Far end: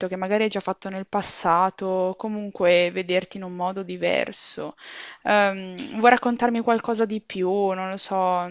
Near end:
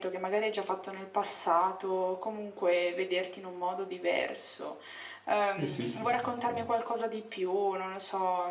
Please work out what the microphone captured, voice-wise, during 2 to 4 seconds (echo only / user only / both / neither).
echo only